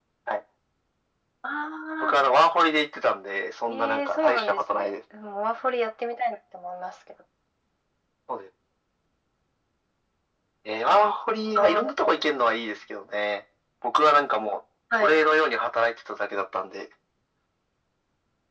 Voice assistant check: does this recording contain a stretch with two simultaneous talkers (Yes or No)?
Yes